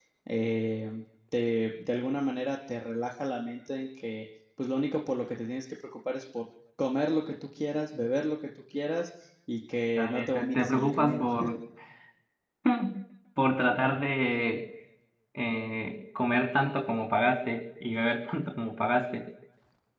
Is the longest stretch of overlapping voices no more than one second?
No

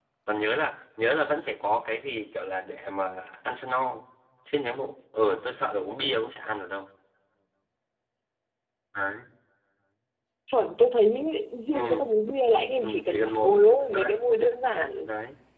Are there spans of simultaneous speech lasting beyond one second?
Yes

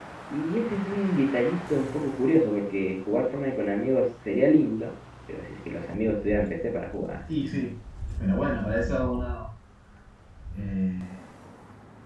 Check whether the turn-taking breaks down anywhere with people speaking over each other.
No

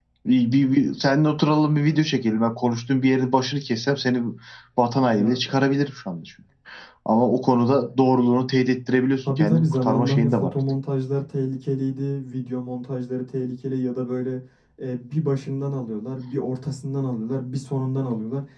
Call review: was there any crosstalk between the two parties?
Yes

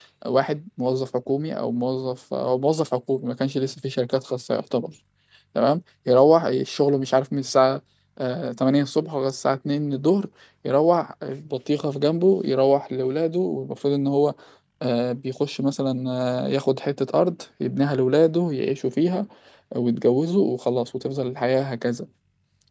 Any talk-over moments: No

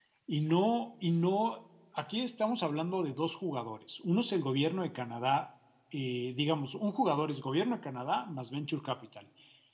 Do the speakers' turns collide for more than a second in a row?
No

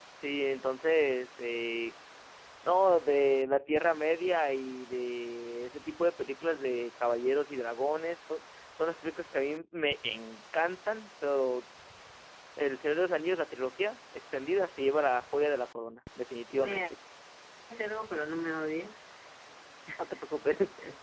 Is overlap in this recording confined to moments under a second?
Yes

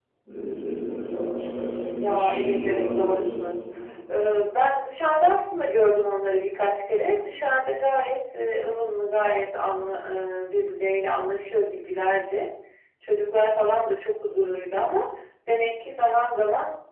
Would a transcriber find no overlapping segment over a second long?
No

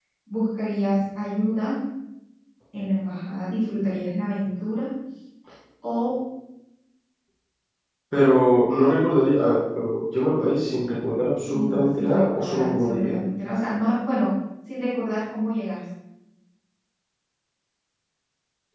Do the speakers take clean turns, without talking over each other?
No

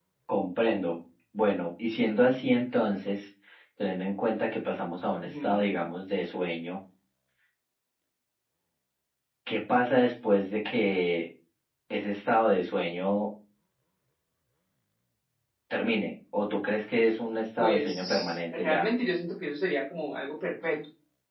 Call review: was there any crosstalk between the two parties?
Yes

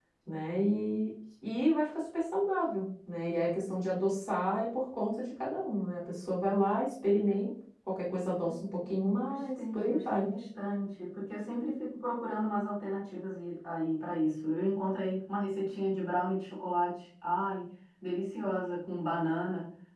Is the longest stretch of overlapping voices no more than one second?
No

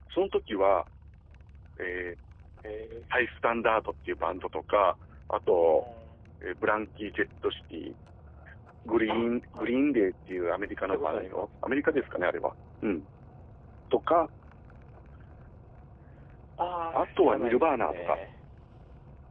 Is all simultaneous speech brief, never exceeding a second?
No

